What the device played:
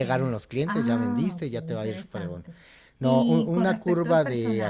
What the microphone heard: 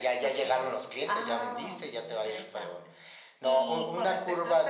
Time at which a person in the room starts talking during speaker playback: none

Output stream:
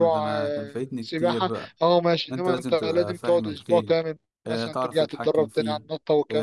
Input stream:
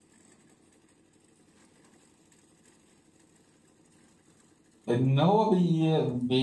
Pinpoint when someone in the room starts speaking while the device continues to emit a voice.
4.9 s

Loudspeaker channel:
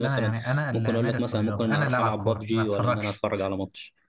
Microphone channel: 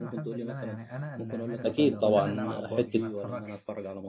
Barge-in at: 1.6 s

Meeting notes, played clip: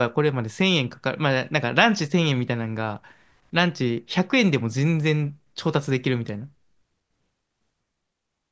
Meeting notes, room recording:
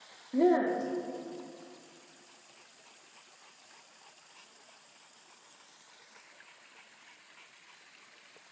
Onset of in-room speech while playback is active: 0.3 s

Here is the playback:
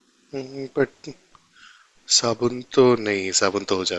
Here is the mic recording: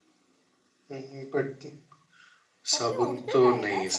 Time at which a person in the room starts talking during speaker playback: 2.7 s

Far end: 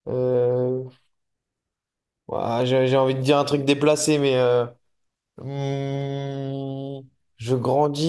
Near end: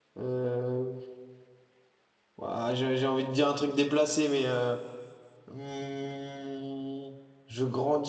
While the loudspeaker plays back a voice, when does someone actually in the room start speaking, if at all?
none

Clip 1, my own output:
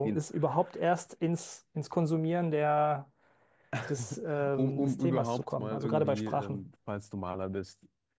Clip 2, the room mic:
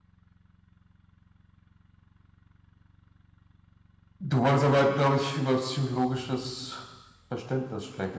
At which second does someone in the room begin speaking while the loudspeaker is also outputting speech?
4.2 s

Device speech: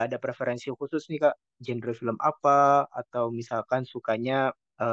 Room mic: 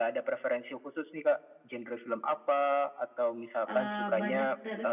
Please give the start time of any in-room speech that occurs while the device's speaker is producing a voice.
3.7 s

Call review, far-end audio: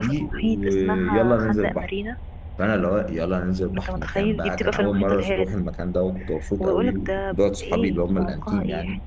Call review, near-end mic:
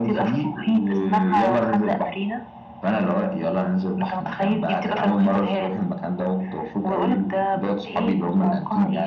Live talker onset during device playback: none

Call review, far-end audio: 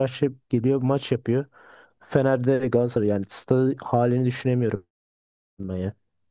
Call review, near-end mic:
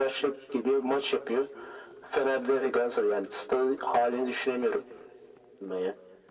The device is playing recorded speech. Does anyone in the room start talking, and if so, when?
none

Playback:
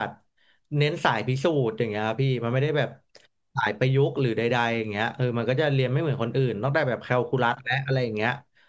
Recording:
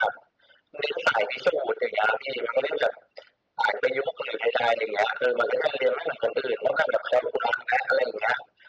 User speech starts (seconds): none

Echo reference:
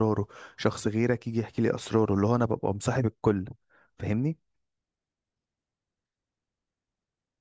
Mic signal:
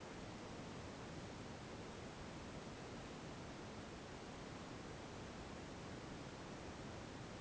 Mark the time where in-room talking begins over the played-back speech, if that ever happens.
none

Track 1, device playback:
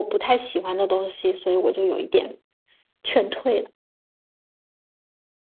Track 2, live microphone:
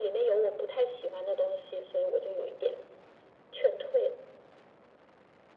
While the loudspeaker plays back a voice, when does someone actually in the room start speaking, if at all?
none

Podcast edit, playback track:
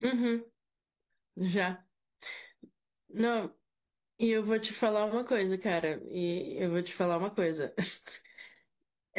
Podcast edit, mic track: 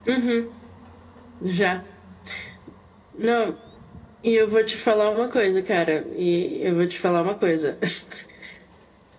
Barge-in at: none

